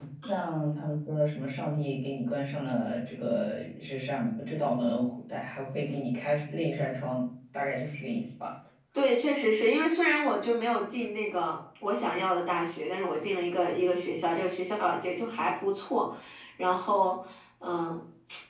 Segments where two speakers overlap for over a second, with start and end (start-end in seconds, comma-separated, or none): none